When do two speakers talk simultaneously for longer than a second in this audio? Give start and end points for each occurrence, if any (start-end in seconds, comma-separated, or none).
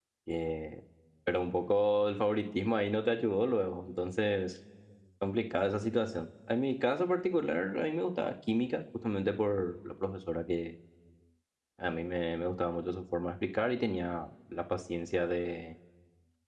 none